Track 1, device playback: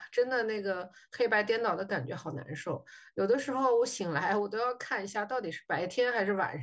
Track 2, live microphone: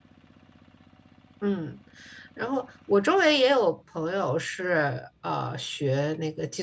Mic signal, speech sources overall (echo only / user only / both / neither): user only